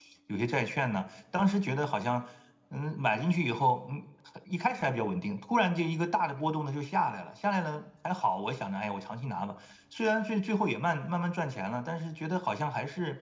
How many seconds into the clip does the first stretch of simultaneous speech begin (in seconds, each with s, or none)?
none